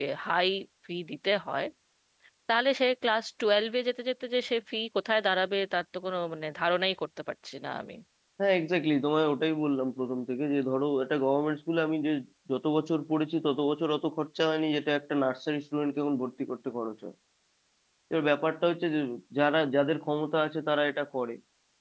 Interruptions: none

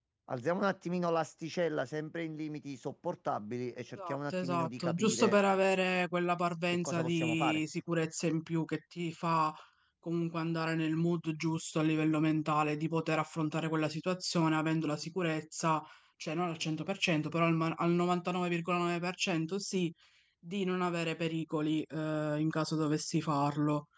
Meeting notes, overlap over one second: present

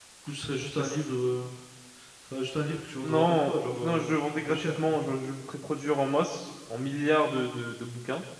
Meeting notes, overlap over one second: present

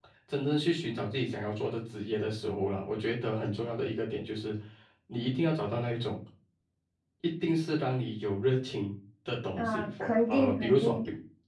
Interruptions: present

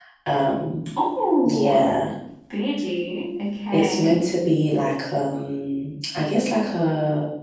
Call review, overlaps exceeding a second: none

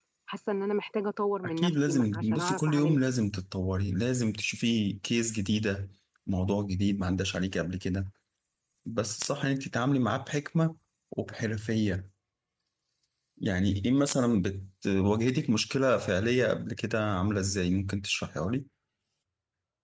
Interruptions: present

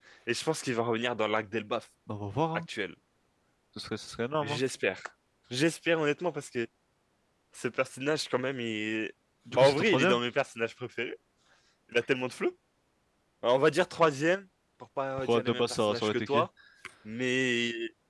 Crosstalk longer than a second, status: present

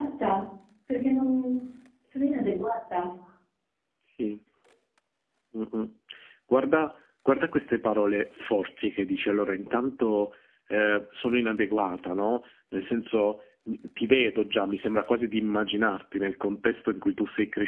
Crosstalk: none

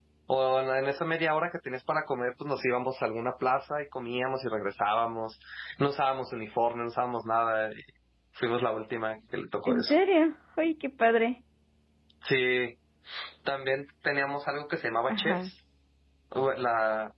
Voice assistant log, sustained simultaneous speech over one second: none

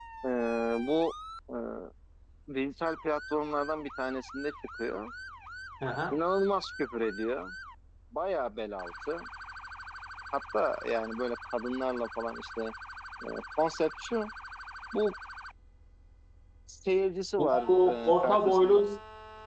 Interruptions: present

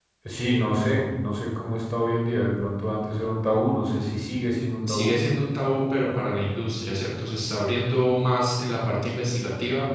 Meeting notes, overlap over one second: none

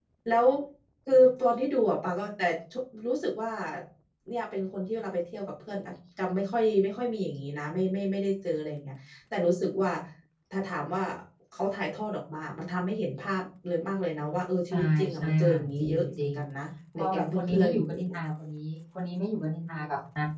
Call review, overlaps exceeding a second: present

